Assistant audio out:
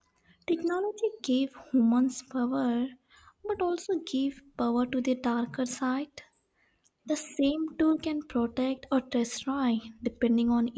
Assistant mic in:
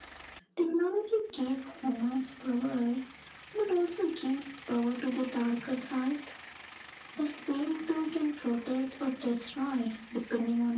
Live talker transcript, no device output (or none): none